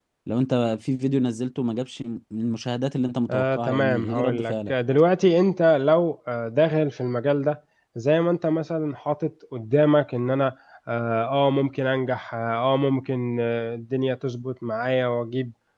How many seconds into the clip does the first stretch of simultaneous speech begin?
3 s

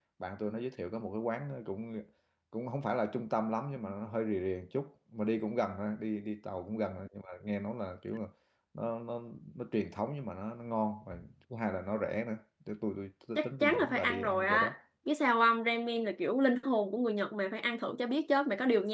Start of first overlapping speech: 13 s

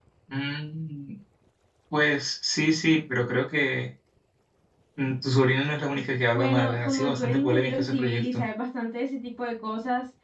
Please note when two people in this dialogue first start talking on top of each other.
6 s

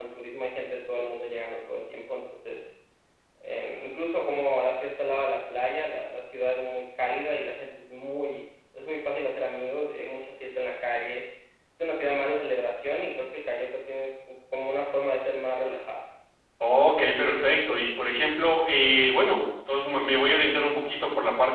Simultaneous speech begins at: none

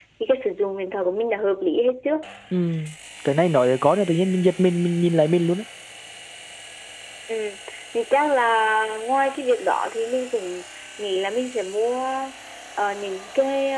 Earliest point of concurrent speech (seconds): none

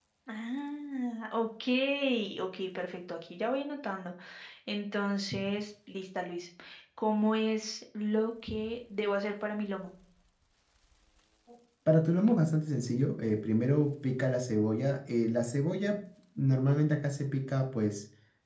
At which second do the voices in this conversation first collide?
none

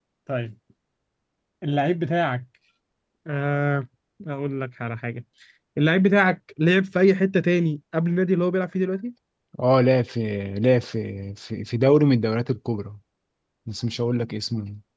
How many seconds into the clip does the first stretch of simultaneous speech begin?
none

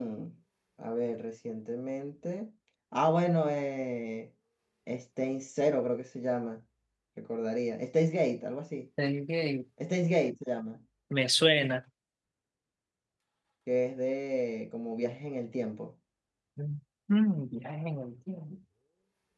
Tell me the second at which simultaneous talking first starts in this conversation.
none

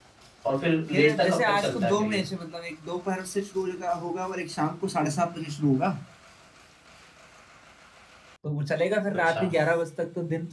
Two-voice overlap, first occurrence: 1 s

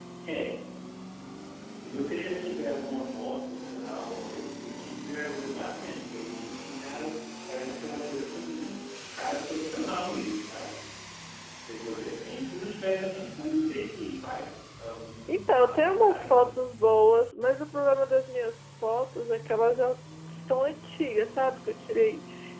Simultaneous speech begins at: 15 s

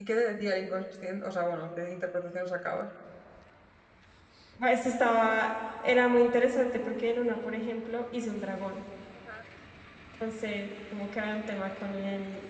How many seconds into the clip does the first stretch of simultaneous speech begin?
none

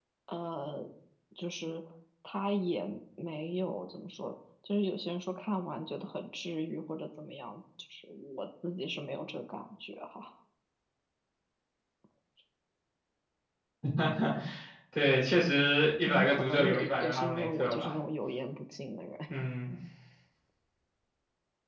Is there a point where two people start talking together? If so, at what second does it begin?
16 s

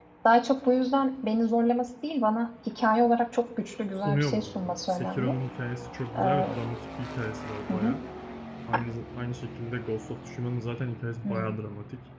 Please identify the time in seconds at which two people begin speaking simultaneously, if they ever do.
4 s

